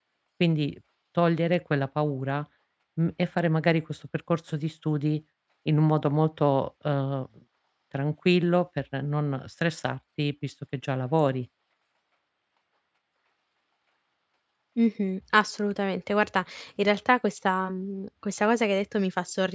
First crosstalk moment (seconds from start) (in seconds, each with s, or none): none